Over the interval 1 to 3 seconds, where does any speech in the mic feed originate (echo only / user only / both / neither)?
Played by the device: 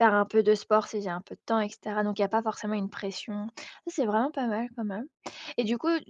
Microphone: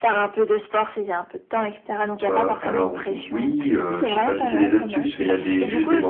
both